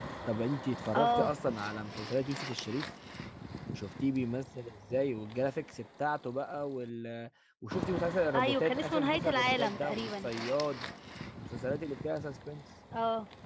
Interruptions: present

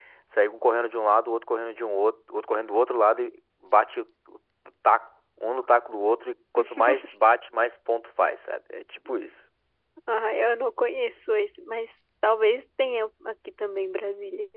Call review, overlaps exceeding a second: none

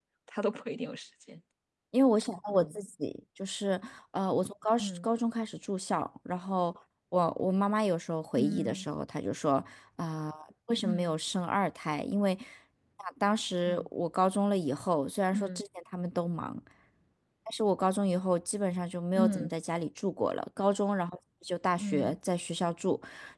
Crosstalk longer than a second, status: none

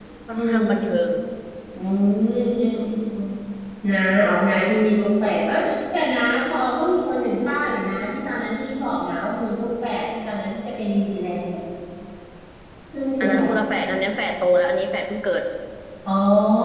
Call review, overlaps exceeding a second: none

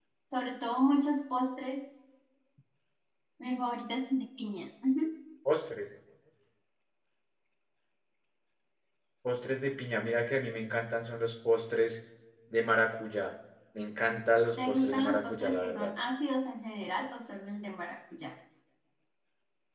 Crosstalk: present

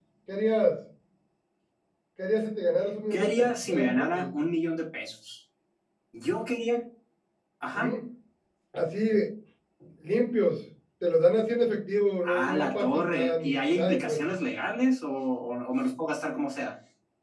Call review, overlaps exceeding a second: present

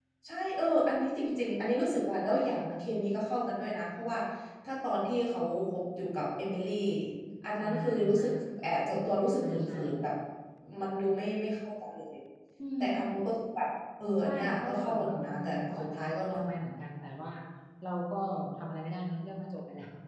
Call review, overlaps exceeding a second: present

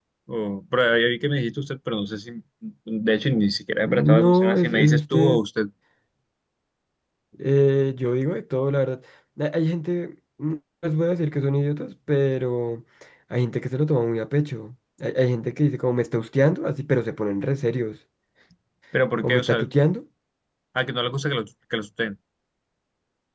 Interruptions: present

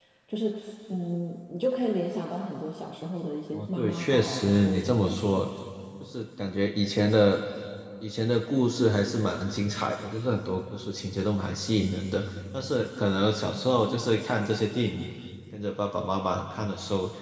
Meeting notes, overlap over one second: present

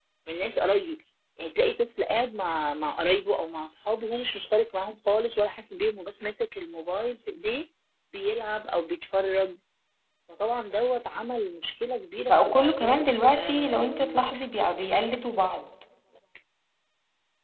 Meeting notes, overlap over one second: present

